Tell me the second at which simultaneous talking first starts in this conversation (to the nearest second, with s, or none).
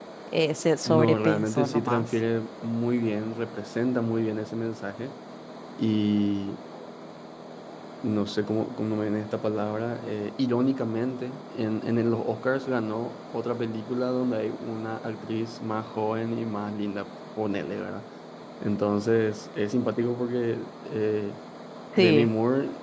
1 s